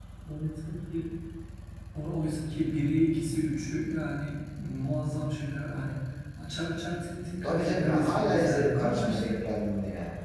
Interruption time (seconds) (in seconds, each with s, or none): 7.4 s